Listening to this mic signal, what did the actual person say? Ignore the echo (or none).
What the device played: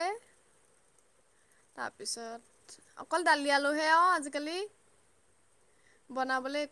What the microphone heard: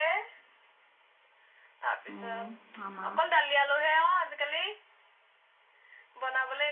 উম আমাৰ